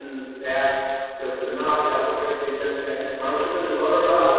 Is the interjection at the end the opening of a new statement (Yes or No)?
No